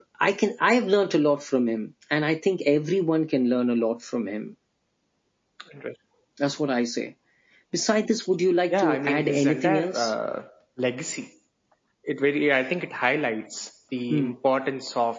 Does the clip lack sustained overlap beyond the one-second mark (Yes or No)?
No